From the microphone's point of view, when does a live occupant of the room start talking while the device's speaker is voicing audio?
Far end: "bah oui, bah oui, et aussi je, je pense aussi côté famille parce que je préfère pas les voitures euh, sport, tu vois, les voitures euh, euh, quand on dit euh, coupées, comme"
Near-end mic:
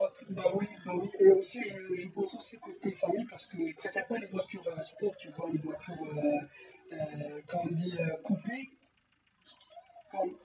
none

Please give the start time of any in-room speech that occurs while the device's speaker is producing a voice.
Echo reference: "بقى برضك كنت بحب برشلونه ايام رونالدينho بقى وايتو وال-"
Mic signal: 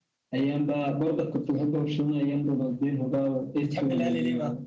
4 s

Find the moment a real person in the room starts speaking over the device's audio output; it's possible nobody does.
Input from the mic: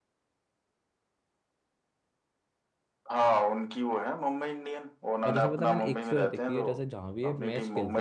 5 s

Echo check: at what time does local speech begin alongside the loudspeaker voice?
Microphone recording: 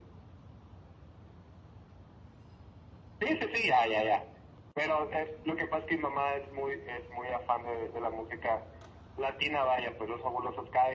none

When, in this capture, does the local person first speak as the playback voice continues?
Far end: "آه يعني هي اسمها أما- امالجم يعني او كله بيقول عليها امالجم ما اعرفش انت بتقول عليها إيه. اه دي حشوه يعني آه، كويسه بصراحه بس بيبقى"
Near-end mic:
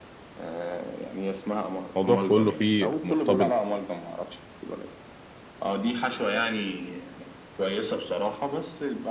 2 s

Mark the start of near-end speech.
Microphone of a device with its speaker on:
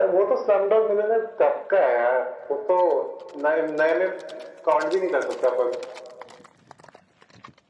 none

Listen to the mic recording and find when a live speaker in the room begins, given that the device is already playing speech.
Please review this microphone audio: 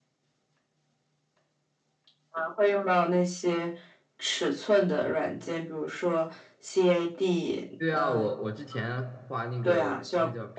8 s

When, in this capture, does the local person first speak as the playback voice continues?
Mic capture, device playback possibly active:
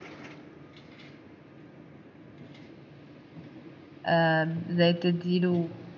4 s

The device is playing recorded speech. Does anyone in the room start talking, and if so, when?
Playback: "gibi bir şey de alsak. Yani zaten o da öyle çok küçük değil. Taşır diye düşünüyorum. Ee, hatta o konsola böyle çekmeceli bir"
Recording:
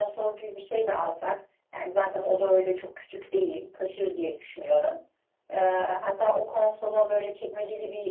none

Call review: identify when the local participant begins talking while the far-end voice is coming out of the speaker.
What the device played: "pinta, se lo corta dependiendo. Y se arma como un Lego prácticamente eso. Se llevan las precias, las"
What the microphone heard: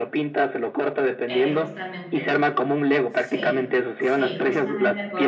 1 s

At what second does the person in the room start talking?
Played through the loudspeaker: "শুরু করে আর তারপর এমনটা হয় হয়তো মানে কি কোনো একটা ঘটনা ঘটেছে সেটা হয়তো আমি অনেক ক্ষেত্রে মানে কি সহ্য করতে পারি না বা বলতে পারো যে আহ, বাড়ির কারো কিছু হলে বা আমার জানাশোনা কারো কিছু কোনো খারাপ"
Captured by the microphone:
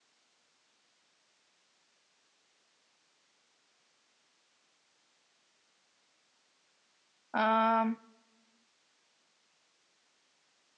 7 s

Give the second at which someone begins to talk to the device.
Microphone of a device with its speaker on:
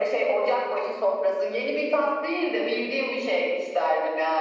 none

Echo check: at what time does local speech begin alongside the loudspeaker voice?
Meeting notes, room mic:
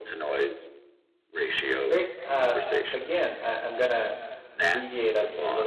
2 s

